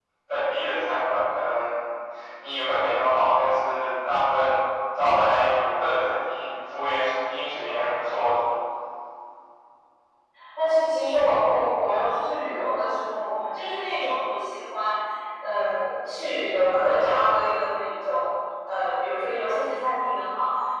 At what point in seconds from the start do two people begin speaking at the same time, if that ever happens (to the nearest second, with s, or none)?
none